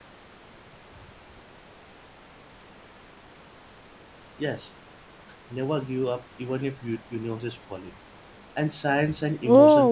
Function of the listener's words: taking over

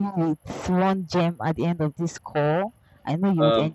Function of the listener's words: taking over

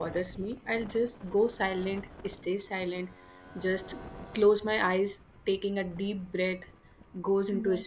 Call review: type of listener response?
listening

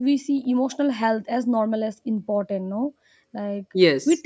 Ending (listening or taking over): listening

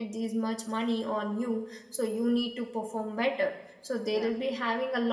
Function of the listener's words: listening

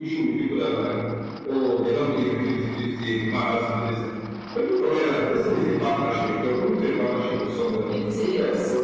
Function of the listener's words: listening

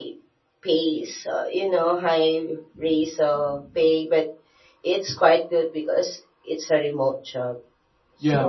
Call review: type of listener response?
taking over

